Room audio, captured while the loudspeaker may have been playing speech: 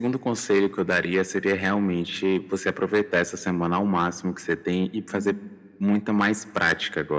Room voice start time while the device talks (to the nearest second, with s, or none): 5 s